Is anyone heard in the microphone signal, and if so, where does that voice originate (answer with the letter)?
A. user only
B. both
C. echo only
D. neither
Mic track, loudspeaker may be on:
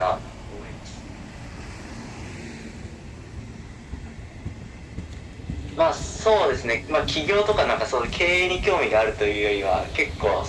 C